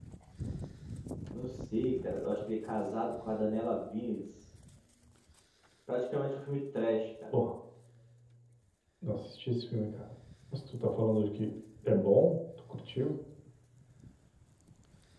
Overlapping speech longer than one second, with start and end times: none

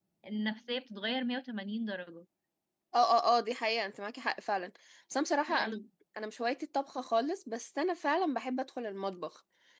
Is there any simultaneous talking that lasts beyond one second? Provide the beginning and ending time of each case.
none

